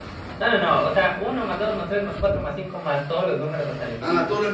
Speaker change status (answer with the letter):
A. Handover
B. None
A